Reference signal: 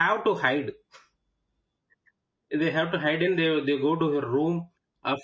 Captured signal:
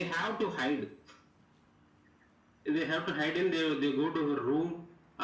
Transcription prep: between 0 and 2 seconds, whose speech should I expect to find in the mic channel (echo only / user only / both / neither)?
echo only